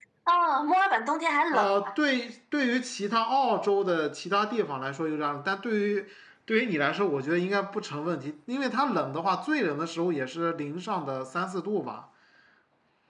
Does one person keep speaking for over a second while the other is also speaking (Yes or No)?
No